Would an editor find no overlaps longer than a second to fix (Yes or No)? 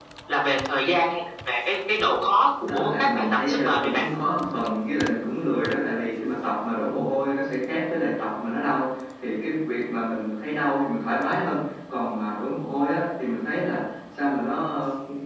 No